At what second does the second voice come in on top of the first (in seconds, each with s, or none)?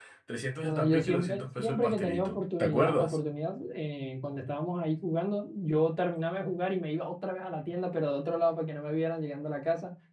0.6 s